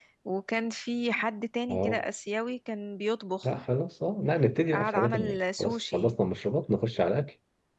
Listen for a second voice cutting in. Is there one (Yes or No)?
Yes